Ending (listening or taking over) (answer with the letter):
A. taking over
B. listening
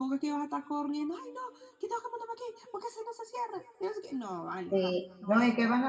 A